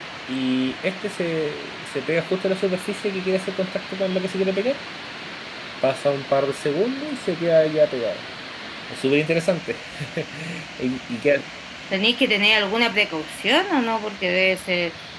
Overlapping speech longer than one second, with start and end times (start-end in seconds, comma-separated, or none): none